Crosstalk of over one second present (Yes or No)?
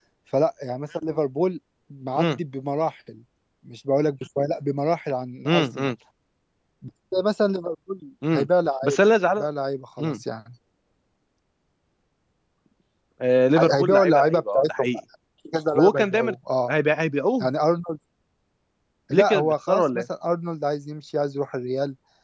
Yes